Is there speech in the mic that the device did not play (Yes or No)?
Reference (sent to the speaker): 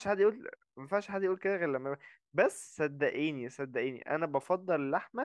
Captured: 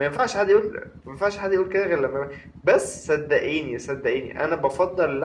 No